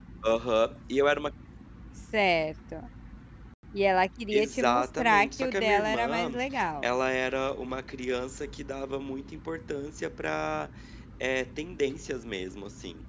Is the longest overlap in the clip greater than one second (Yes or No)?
Yes